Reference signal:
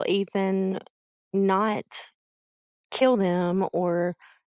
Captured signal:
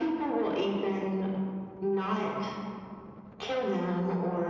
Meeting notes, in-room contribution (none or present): none